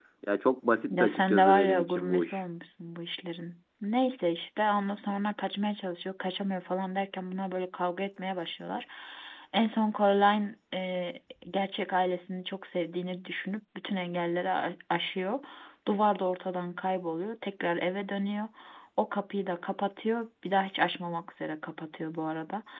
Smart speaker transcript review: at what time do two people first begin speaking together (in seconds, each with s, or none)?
0.9 s